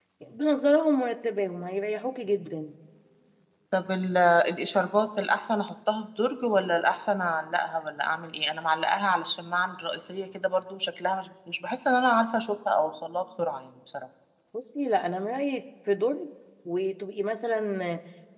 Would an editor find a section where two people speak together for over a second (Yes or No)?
No